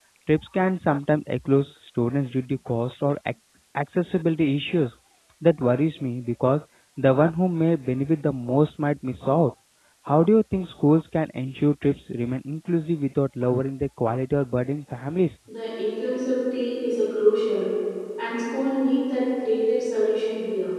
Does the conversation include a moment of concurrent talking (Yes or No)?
No